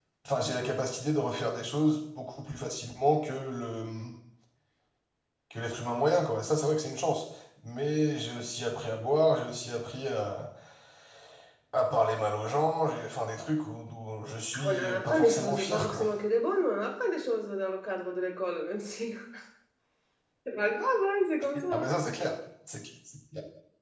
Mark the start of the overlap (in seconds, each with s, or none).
14.5 s